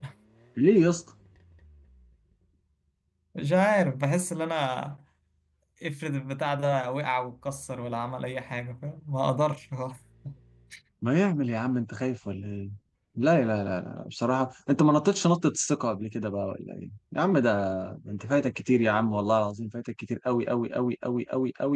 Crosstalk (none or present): none